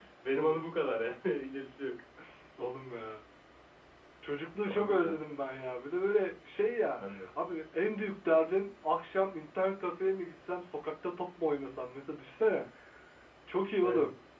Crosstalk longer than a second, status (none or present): none